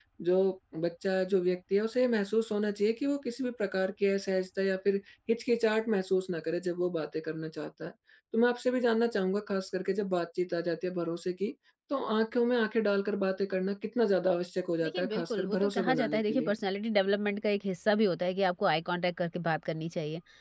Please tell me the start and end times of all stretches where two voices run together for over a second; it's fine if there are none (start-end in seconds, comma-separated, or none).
14.8-16.6